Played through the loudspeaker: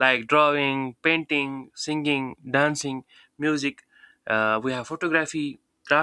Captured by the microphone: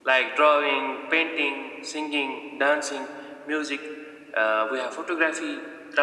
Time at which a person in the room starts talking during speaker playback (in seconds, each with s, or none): none